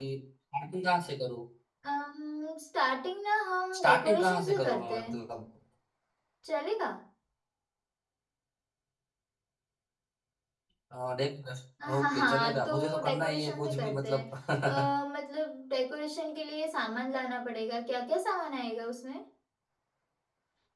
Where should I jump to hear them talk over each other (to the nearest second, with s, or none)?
4 s